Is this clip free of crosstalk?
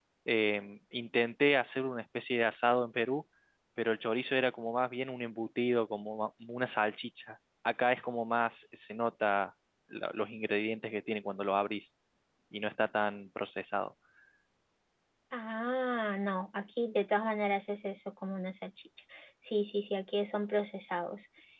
Yes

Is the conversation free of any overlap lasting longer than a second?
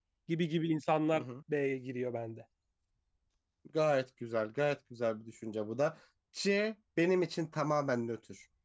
Yes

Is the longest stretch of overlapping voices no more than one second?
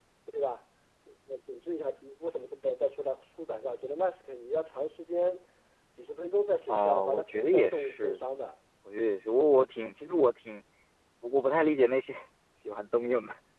No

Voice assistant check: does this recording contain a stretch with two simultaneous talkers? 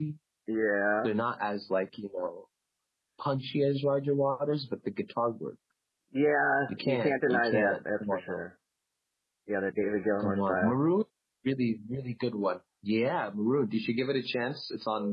Yes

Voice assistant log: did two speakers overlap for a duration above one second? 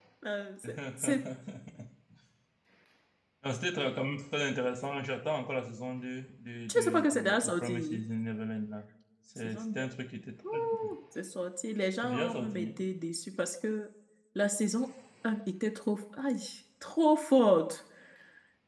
Yes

